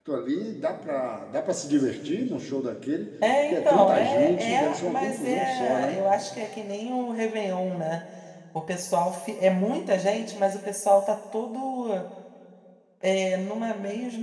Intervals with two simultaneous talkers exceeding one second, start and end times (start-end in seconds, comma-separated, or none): 3.5-6.0